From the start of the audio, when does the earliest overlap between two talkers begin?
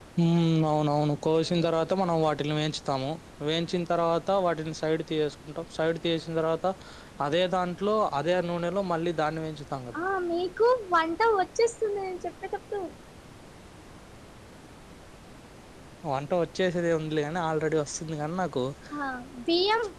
none

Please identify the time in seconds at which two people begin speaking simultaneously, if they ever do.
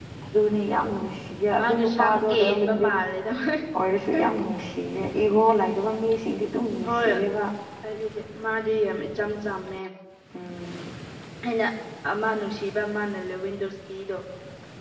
2 s

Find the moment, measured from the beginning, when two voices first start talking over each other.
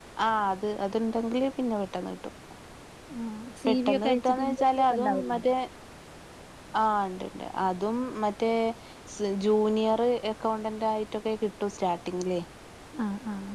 4 s

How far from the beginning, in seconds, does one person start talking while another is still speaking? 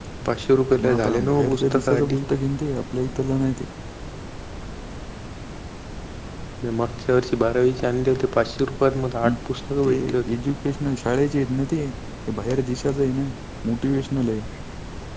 1 s

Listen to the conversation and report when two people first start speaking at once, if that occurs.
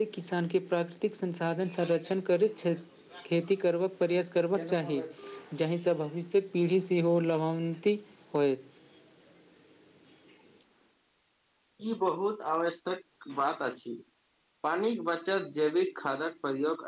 none

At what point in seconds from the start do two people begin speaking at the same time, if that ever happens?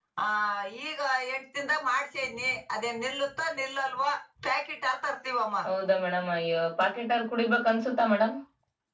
none

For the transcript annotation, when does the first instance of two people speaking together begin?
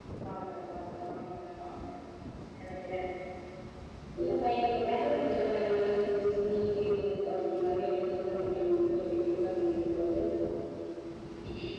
5 s

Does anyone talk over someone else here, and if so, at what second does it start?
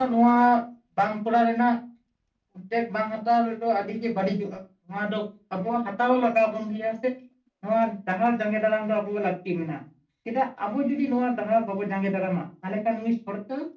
none

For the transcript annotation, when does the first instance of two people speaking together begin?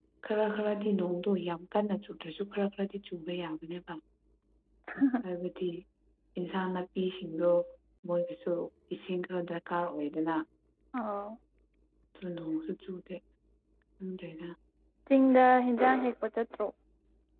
none

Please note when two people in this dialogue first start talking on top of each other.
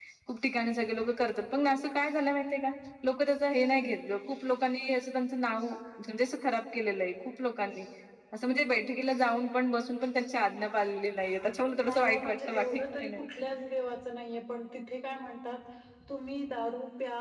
12 s

